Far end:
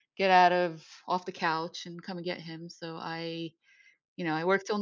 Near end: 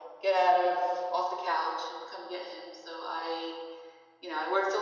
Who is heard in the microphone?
echo only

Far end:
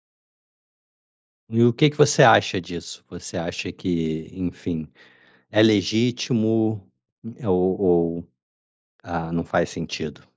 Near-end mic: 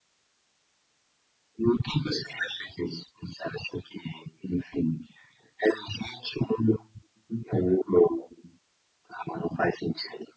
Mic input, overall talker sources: echo only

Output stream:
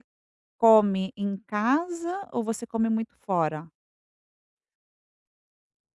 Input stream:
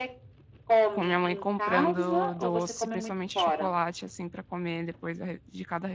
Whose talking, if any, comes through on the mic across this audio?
both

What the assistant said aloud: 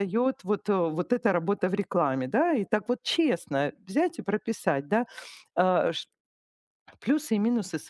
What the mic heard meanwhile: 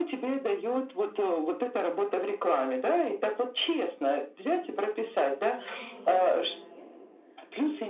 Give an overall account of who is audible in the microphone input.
both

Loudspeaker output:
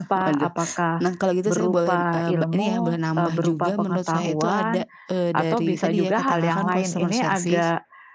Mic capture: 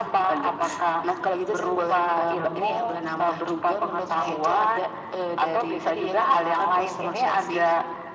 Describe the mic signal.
echo only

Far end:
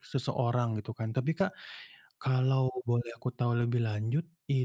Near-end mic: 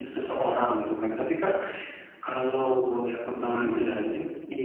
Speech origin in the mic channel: both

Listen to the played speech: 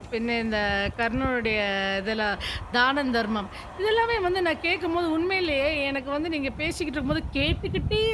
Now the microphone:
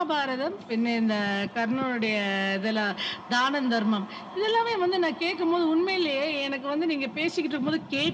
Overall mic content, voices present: echo only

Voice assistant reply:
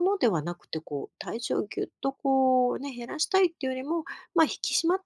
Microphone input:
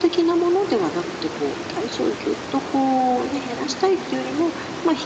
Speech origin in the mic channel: echo only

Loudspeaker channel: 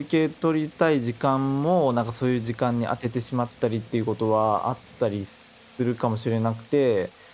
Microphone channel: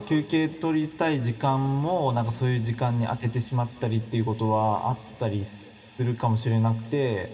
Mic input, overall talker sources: echo only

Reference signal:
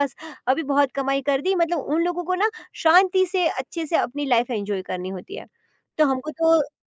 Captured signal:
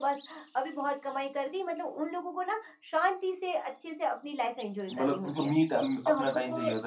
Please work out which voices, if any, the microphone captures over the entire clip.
both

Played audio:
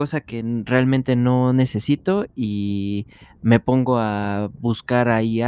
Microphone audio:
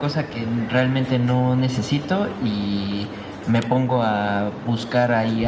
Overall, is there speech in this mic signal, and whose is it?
echo only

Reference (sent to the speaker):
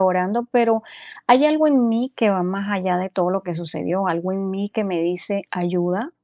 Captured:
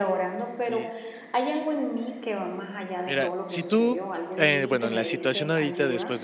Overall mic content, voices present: both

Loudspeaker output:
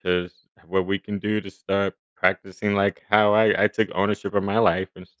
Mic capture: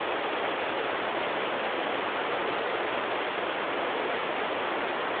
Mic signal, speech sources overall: neither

